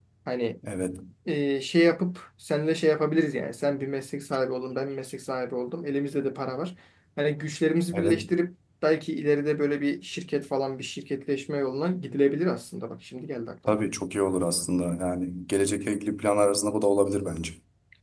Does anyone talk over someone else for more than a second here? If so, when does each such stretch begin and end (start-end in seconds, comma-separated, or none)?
none